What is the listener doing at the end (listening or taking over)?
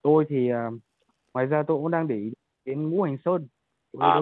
taking over